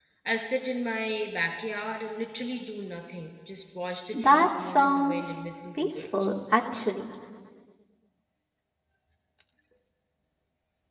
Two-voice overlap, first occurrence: 4 s

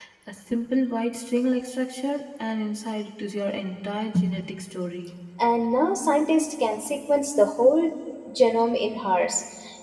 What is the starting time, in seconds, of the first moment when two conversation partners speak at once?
none

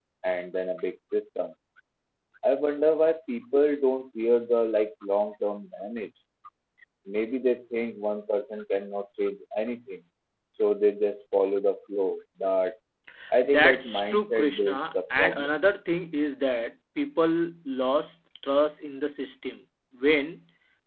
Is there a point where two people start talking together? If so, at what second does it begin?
13 s

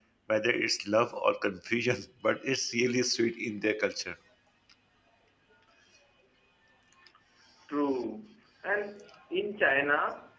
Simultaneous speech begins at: none

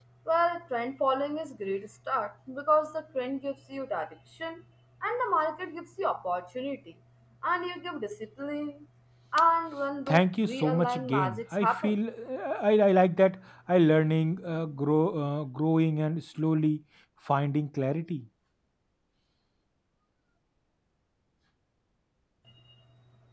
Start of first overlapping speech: 10 s

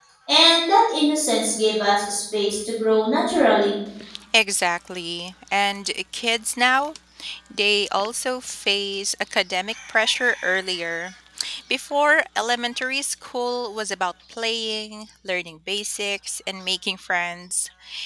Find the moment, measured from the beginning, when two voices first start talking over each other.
none

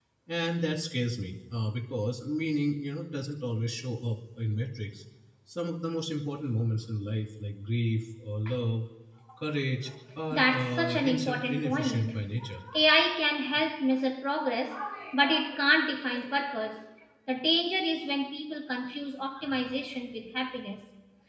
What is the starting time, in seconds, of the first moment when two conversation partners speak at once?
10 s

